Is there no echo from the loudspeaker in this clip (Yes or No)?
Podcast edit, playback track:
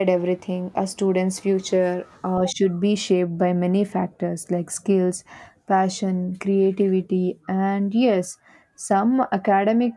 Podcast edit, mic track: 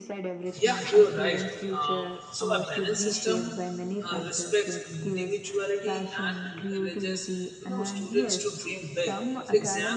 No